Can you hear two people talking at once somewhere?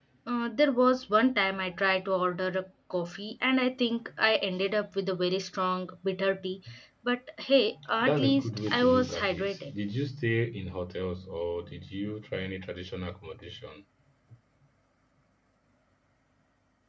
Yes, from 8.0 s

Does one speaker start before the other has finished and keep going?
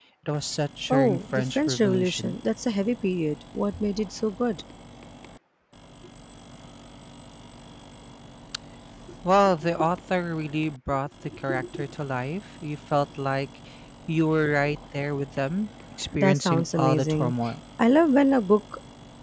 Yes, from 0.9 s

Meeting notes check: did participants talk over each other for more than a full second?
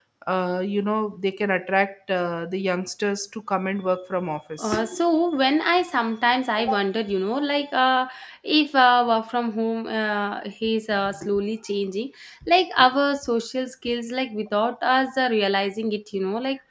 No

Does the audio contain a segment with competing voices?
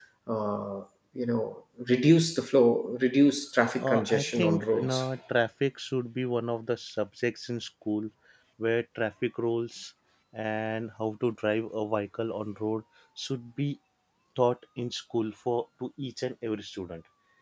Yes, from 3.8 s

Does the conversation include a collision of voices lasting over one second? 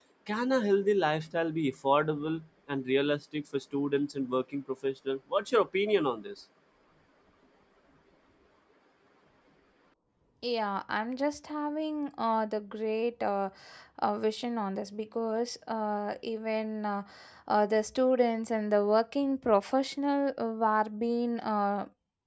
No

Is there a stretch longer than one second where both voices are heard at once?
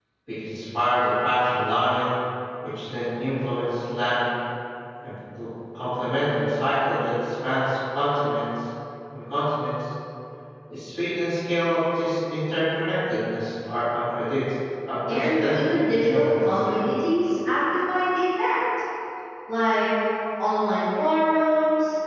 Yes, from 15.1 s

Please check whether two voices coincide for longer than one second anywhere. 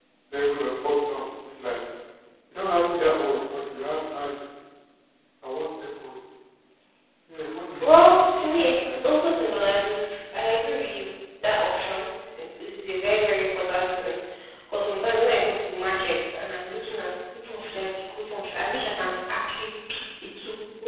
Yes, from 7.8 s

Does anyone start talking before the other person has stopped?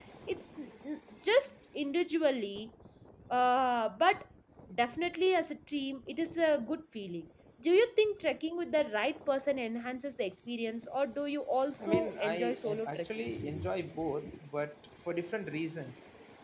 Yes, from 11.8 s

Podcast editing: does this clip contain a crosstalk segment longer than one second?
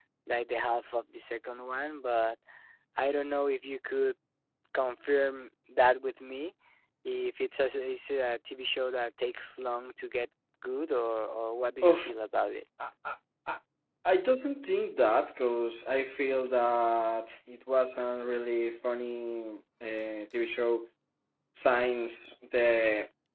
No

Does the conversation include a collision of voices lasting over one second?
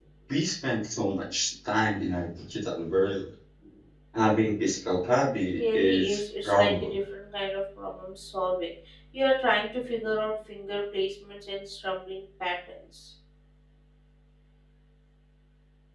Yes, from 5.5 s

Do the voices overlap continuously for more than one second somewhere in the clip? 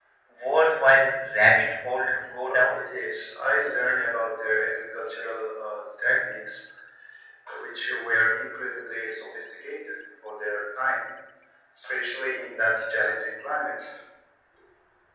No

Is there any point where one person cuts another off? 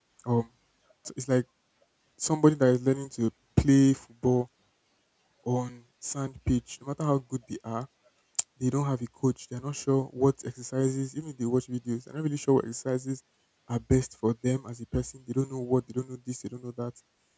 No

